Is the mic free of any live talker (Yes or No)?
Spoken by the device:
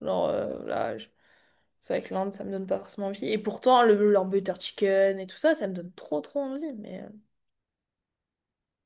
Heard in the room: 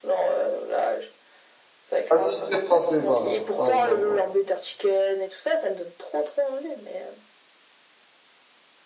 No